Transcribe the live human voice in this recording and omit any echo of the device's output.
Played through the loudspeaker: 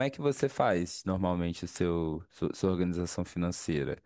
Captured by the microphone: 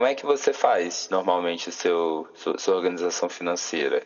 none

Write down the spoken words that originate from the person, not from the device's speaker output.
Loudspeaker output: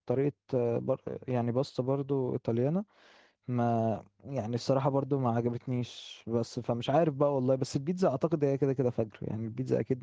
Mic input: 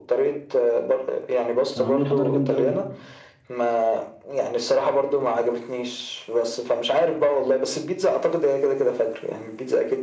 كانوا عاملين حضاره جامده قوي

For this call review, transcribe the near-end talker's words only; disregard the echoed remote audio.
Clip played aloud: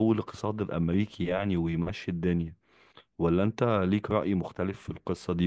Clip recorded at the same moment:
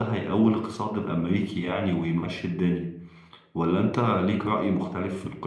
none

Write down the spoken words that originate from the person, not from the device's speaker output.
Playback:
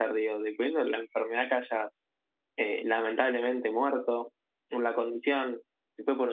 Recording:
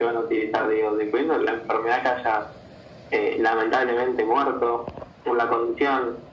none

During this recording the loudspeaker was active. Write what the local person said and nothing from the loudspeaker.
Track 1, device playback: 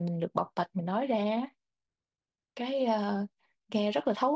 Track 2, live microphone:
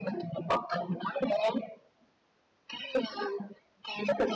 none

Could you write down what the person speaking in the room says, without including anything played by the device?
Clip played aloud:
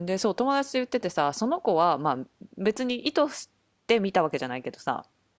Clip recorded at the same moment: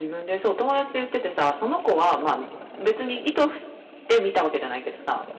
none

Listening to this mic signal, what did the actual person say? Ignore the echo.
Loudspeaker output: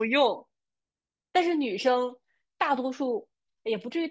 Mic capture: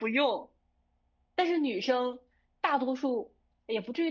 none

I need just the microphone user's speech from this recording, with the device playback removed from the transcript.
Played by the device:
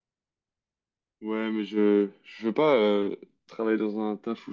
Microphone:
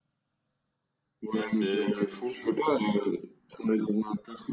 Ouais, c'est c'est fou.

